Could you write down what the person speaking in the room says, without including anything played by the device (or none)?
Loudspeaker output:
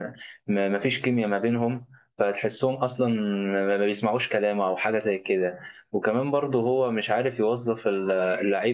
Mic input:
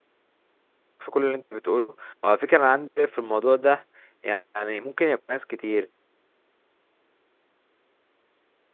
في كل اللي انت بتقوله وعلى فكره انا عندي في الموضوع ده يعني ممكن يكون ناس كتير